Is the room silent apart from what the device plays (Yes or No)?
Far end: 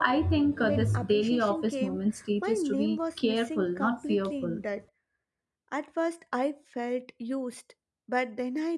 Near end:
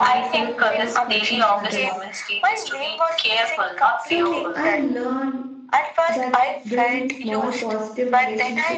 No